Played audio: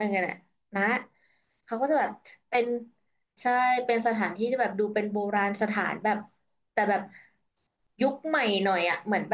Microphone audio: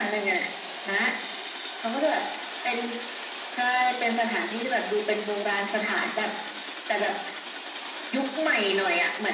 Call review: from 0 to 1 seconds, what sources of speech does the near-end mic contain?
echo only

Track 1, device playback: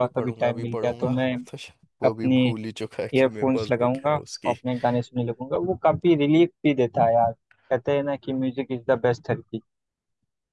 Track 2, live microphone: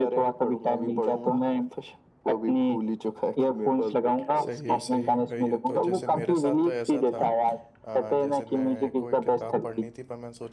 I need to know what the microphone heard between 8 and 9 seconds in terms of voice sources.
both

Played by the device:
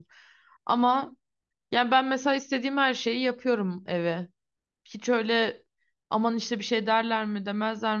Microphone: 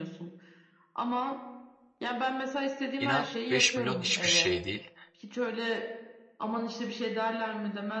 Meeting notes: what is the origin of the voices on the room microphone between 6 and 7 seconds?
echo only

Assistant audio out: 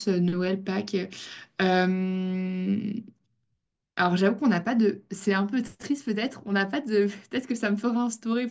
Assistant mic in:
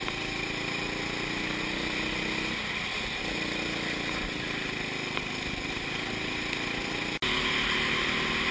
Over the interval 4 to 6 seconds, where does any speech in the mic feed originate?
neither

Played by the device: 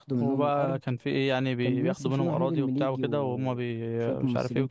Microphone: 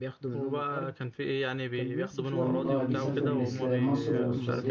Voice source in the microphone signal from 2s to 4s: both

